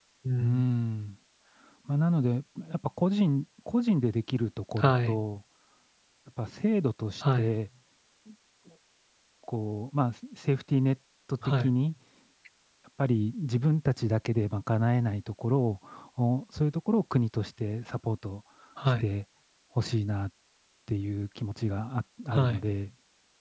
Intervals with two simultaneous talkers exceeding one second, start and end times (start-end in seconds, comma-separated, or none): none